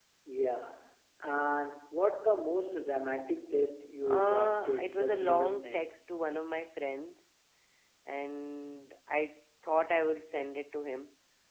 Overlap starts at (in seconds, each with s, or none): 4.0 s